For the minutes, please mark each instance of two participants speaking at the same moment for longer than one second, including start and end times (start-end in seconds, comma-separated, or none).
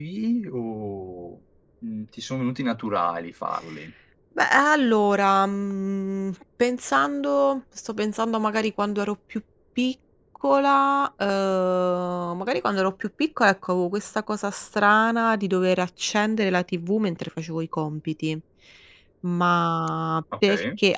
none